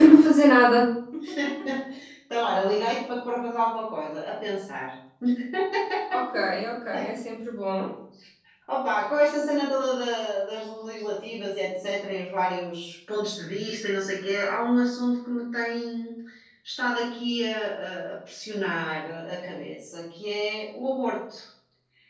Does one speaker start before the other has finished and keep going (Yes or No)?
No